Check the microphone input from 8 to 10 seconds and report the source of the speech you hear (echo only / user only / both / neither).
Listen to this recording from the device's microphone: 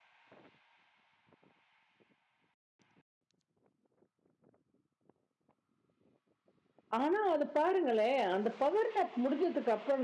user only